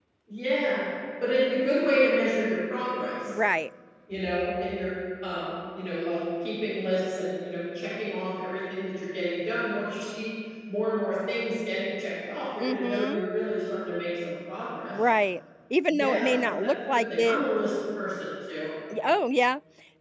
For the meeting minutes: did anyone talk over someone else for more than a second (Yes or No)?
Yes